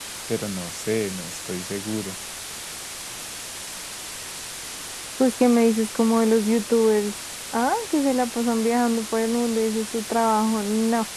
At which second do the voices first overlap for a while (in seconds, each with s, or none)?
none